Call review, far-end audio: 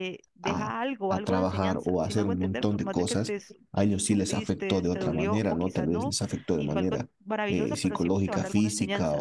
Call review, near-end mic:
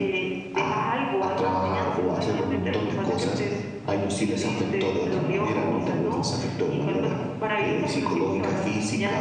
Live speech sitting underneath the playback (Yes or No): Yes